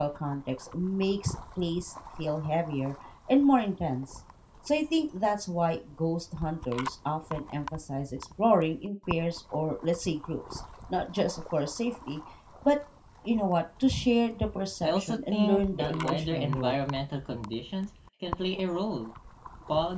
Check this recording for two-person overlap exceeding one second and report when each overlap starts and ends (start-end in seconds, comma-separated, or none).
14.8-16.7